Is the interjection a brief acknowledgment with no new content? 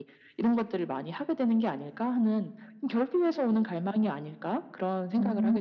No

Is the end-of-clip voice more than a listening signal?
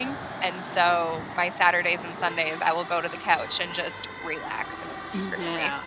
Yes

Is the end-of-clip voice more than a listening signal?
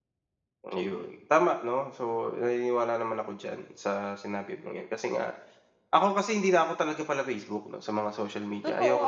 Yes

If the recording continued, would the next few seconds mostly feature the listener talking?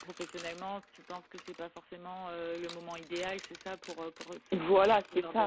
Yes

